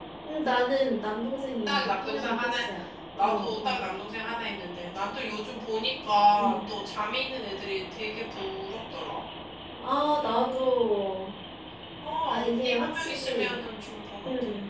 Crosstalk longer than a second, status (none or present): present